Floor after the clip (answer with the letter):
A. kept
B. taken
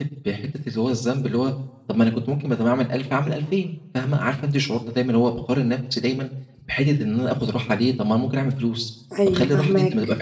A